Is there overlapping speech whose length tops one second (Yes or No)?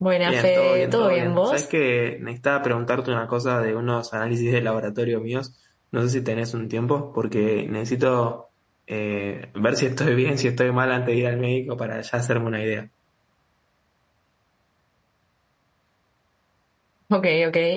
Yes